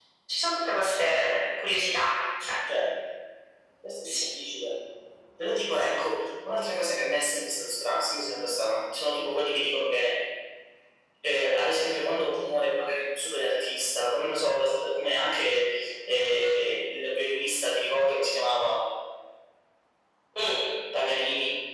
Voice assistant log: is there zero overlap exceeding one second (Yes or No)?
Yes